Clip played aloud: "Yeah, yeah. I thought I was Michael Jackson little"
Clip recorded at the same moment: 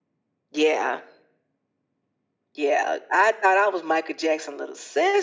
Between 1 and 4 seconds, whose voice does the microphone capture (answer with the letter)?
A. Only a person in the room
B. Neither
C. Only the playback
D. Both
C